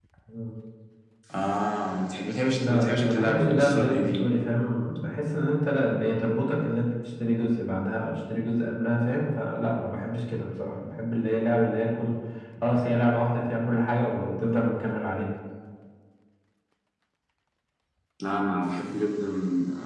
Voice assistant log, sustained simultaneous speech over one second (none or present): present